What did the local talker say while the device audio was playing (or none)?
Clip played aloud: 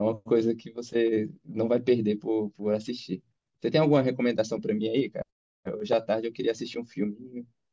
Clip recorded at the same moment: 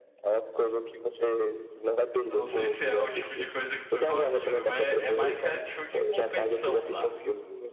Eu não sei se é o tipo de coisa que tu gosta de ver, mas é, é mais reality show de competição, tá?